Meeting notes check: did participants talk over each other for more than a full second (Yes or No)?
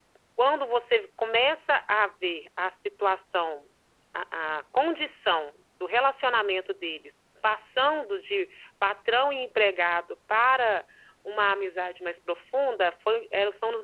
No